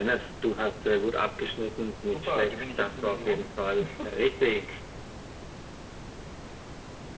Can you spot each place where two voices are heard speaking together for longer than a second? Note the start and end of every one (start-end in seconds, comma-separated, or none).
2.1-3.5